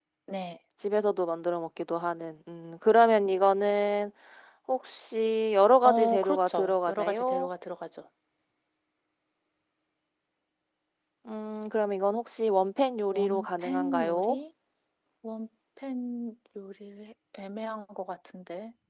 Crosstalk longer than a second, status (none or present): present